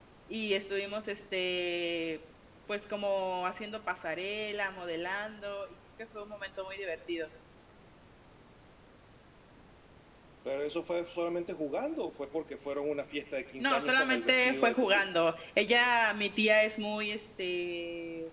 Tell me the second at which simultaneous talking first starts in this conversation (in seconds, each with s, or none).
13.6 s